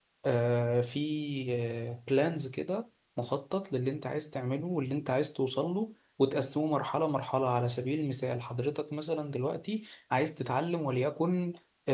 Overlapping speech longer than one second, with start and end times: none

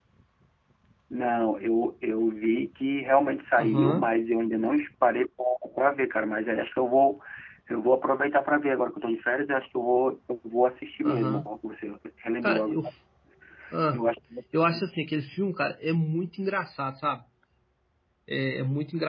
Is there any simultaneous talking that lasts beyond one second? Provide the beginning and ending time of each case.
none

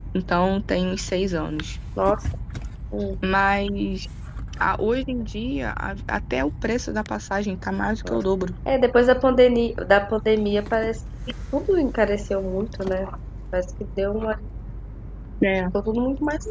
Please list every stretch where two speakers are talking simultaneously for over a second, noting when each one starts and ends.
none

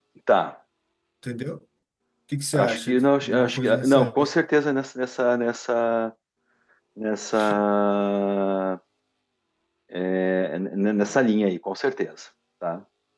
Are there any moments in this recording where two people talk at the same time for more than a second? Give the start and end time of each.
2.5-4.3

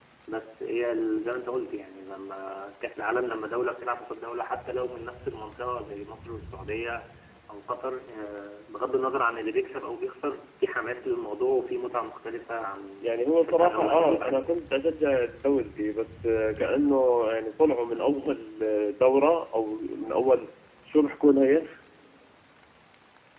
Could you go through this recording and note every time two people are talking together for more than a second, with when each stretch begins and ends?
13.0-14.4

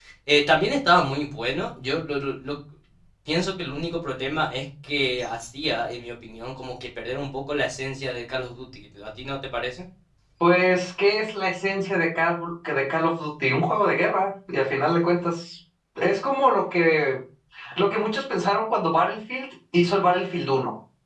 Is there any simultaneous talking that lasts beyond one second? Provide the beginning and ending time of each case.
none

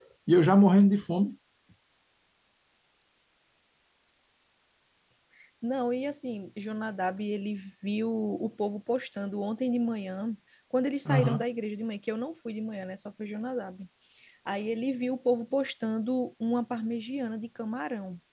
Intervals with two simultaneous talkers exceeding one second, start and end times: none

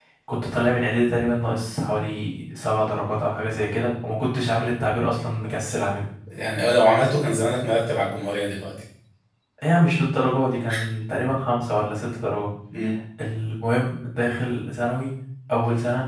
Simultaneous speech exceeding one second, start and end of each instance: none

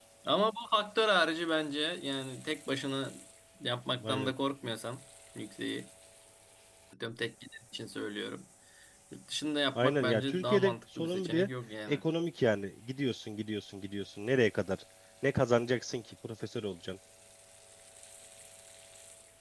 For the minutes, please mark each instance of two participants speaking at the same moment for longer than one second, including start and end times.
9.8-11.5

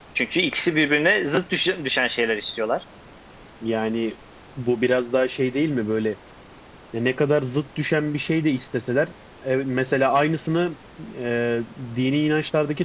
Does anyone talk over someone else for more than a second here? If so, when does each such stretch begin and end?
none

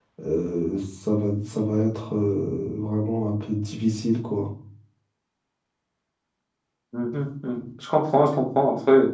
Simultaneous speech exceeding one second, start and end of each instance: none

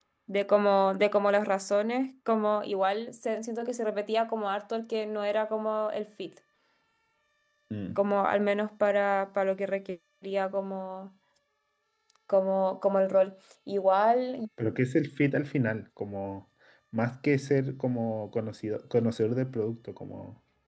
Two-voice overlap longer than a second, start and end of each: none

